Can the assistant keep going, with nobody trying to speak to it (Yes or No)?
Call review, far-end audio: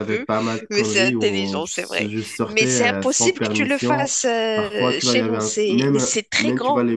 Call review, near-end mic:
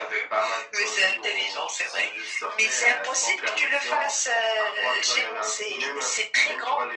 Yes